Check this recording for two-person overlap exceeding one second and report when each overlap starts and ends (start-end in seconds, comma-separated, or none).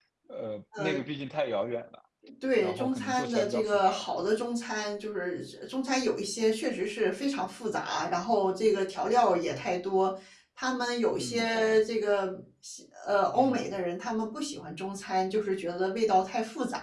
2.6-4.0